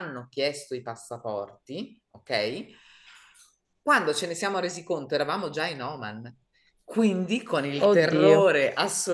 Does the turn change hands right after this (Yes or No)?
No